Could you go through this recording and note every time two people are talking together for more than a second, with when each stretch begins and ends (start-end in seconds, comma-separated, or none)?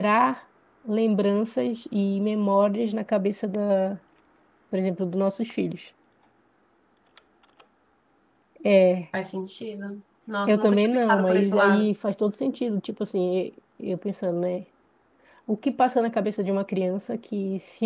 10.5-11.9